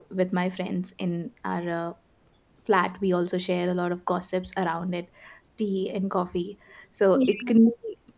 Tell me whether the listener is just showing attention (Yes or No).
Yes